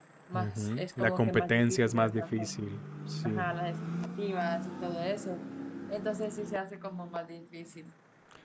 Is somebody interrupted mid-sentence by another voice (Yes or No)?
Yes